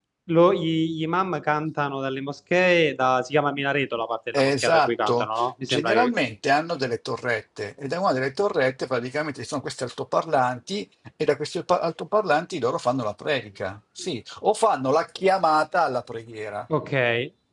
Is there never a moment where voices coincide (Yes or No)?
No